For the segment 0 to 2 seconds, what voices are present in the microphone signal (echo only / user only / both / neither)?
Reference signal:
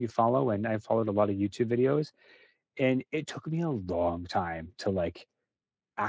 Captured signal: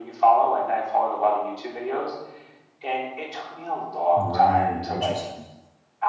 echo only